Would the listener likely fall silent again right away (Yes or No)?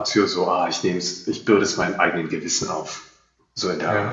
No